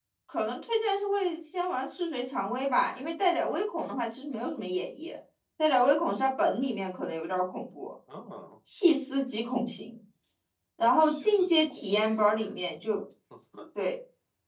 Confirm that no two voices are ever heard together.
No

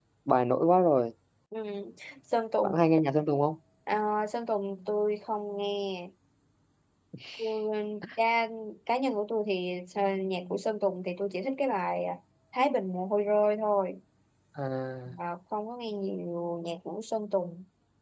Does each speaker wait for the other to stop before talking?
Yes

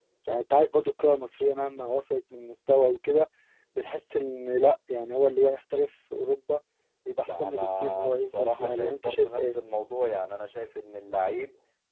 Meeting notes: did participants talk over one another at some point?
Yes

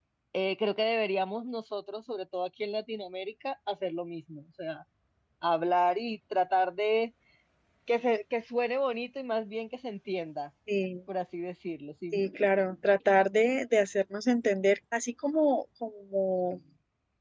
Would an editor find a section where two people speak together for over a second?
No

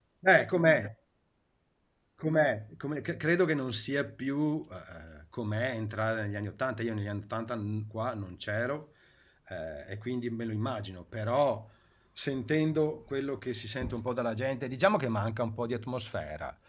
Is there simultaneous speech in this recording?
No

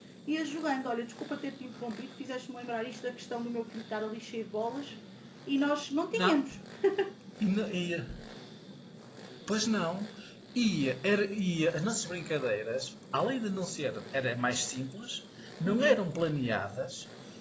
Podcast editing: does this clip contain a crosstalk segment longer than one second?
No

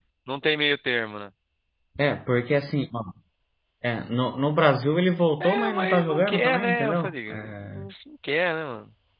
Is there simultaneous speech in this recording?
Yes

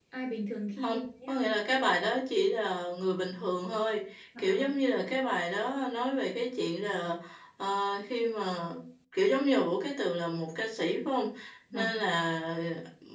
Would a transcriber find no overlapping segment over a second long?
Yes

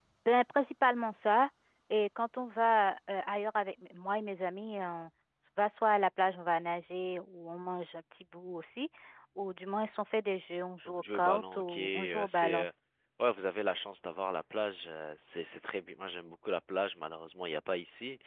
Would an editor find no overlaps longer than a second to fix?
No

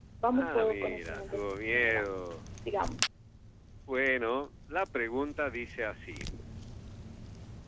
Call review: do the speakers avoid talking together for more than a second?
No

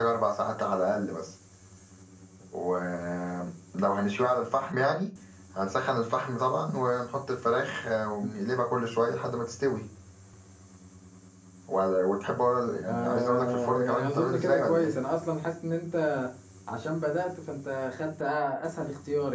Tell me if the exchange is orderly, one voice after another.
No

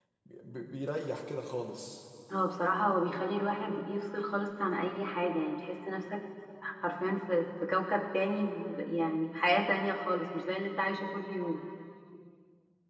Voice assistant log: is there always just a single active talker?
Yes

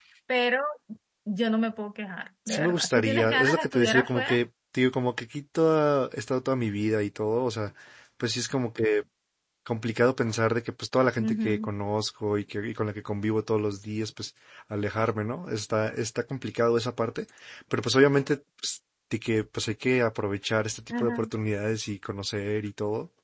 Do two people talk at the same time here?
Yes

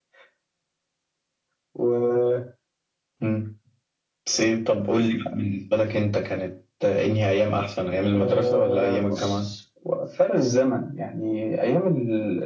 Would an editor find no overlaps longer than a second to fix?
No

